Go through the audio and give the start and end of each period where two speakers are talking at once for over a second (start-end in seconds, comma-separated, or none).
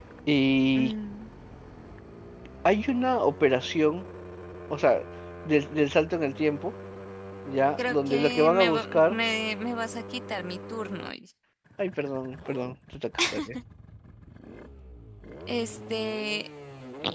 7.8-9.2